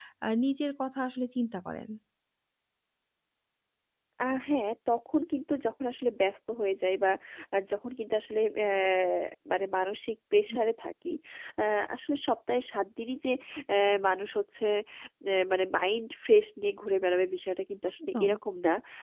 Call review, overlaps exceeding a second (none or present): none